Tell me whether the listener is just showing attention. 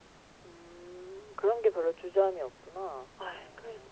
No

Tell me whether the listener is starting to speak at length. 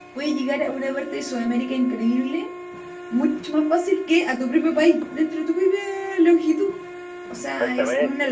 No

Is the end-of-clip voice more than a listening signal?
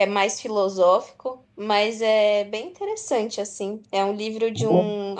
No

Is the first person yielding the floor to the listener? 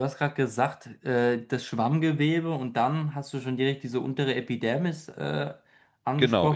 Yes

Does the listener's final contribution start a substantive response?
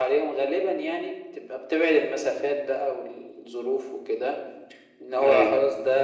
No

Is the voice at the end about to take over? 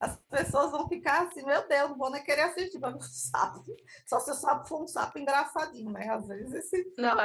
Yes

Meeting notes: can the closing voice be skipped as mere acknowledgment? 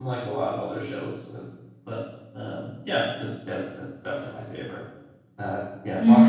No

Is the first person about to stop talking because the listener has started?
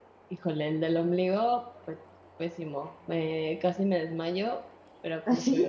No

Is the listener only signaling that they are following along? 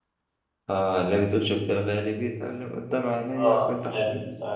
No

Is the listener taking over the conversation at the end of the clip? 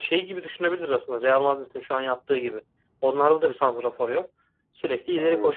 No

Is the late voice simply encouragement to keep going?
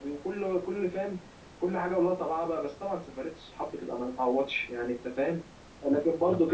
Yes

